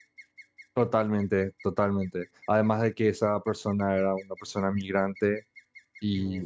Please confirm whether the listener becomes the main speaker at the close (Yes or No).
No